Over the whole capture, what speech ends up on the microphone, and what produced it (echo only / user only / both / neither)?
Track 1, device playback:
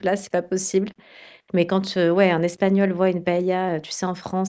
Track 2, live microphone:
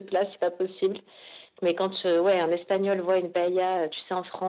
echo only